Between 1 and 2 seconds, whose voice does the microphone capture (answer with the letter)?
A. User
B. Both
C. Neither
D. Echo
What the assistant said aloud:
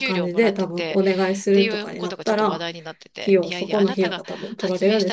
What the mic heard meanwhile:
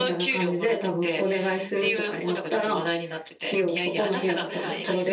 D